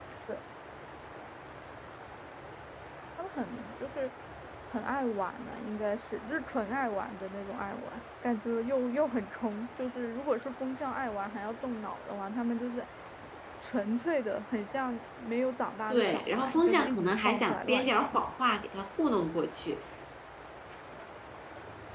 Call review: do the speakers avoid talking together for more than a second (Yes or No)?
No